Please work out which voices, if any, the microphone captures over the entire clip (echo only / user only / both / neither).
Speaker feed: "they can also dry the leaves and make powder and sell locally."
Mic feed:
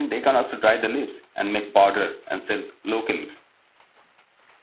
echo only